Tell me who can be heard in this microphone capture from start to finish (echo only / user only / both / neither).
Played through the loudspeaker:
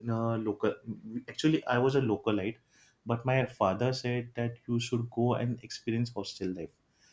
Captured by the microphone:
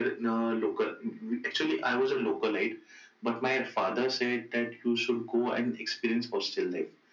echo only